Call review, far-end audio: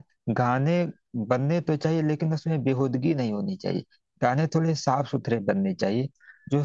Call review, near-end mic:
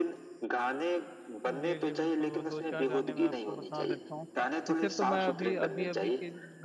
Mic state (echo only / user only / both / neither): both